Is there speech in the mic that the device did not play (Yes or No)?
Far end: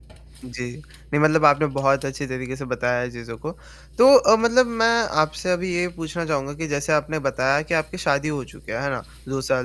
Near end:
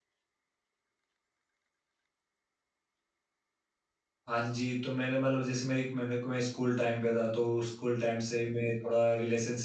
Yes